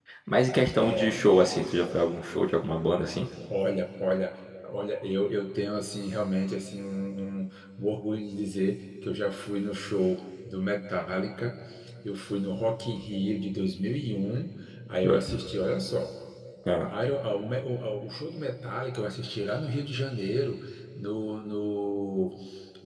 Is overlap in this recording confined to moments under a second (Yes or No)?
Yes